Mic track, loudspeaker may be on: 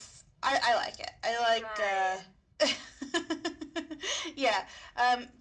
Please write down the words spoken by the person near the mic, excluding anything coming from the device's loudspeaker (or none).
right.